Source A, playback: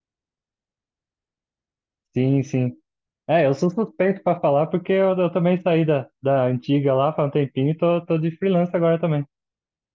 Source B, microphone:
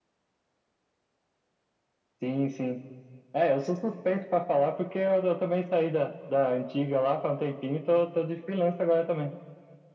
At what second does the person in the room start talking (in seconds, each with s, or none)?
none